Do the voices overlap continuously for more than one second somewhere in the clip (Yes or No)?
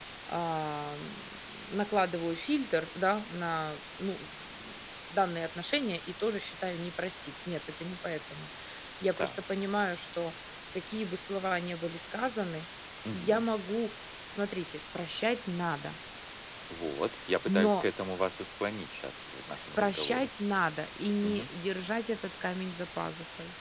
No